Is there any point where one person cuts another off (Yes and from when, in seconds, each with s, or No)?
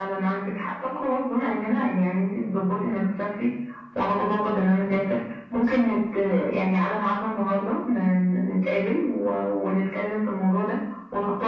No